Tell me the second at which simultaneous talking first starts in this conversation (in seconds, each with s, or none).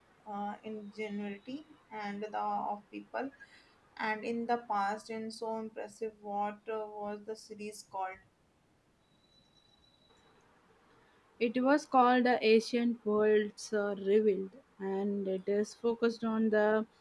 none